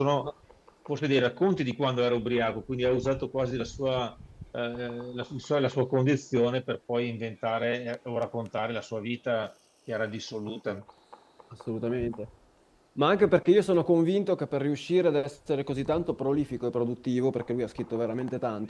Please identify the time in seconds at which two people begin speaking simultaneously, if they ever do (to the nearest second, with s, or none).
none